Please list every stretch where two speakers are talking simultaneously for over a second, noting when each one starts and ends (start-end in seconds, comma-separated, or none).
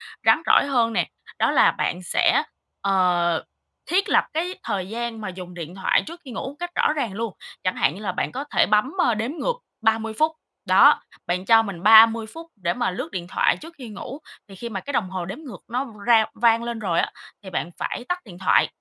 none